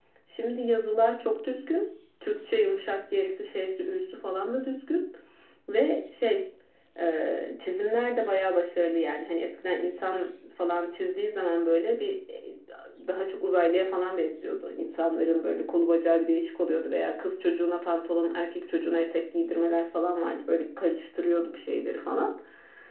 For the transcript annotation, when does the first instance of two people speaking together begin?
none

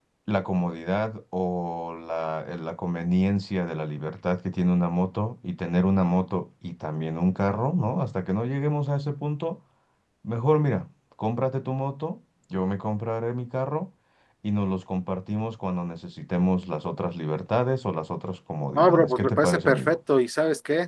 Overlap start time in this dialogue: 18.8 s

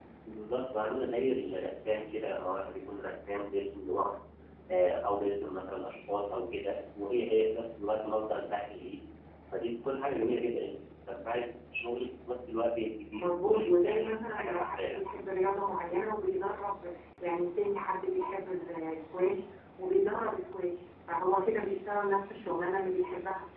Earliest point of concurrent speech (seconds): 13.1 s

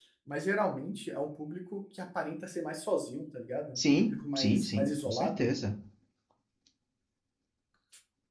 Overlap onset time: 3.8 s

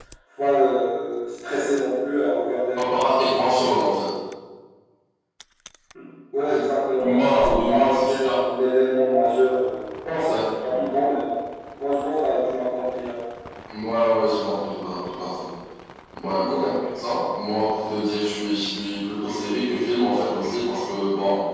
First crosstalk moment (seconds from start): 7.0 s

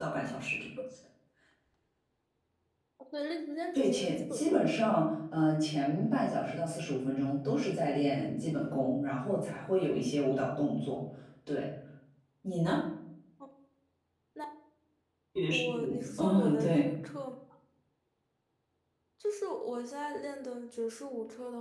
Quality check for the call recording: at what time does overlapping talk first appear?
3.7 s

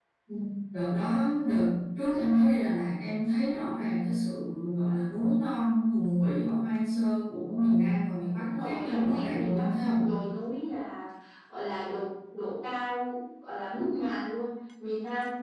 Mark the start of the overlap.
8.4 s

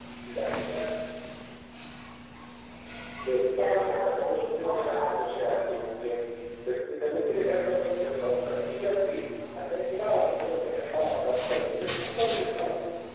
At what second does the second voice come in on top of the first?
3.5 s

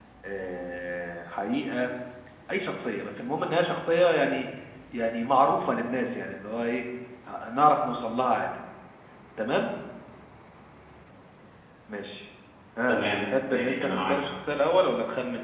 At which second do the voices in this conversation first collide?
12.8 s

